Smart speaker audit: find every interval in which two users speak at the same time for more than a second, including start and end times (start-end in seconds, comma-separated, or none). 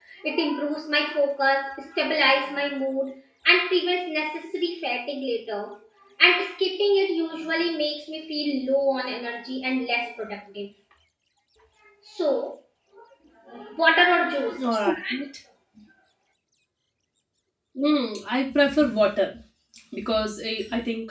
none